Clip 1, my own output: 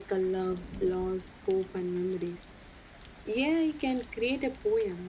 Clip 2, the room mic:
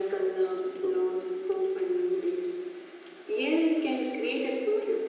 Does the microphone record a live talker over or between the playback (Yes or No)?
No